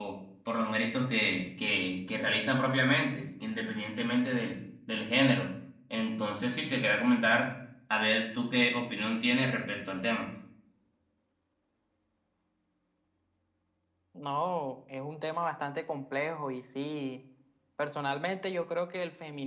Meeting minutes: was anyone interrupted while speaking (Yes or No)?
No